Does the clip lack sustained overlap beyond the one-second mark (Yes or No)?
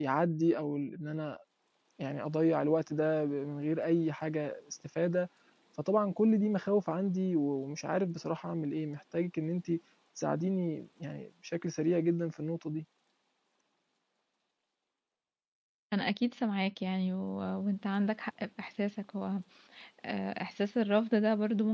Yes